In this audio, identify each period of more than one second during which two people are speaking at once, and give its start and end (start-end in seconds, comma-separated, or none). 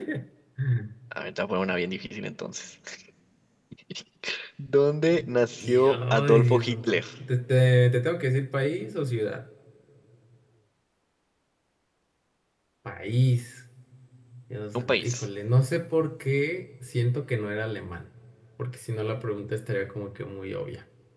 5.6-7.0